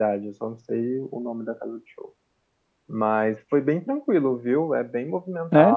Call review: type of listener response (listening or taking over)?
listening